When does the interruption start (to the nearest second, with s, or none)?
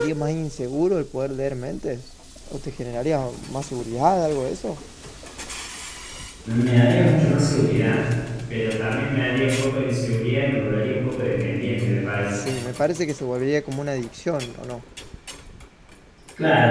none